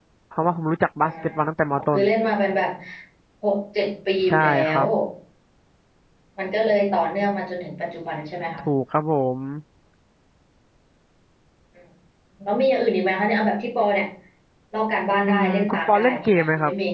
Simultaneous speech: Yes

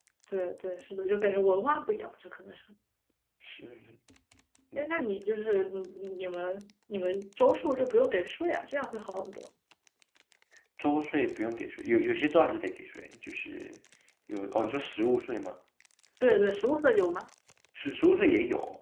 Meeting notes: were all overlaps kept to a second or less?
Yes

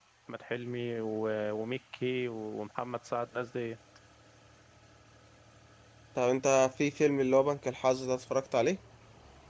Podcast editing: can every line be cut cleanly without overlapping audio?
Yes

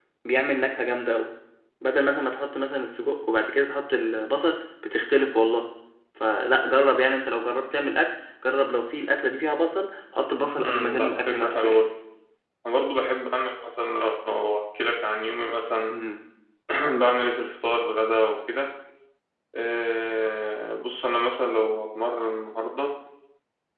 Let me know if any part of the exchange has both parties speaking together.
Yes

